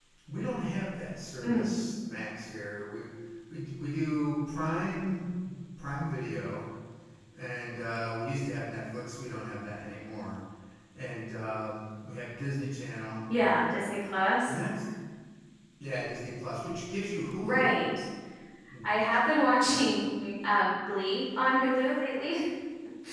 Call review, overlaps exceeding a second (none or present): none